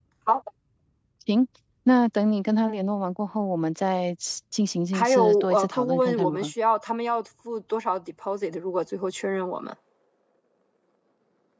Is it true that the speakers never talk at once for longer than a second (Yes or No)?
No